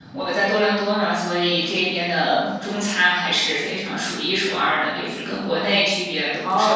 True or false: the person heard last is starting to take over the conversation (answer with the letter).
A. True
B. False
A